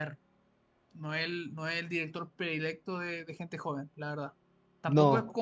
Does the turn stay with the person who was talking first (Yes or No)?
Yes